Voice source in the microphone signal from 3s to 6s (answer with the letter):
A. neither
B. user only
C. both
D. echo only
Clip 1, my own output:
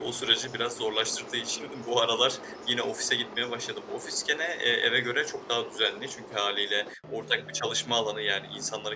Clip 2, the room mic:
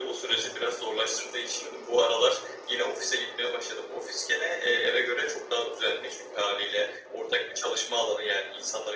D